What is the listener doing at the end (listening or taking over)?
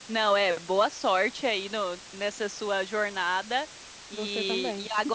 listening